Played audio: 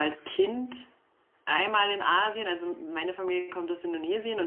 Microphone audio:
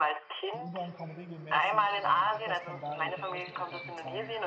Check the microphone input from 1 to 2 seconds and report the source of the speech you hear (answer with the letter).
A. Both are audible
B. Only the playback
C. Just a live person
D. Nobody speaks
A